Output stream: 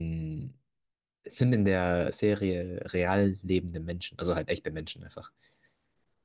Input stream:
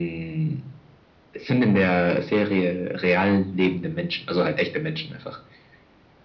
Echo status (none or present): present